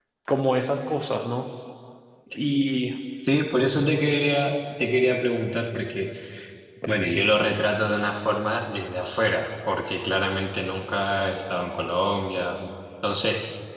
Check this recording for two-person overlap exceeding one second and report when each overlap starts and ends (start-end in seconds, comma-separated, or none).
none